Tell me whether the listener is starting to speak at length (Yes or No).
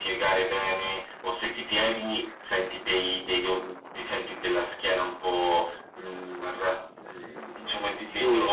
No